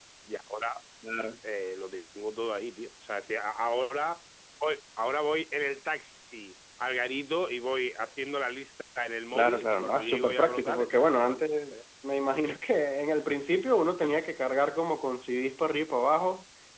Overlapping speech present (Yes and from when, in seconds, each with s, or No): Yes, from 9.3 s